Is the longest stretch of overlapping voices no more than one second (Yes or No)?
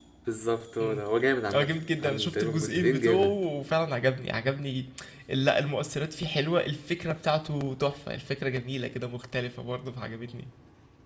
No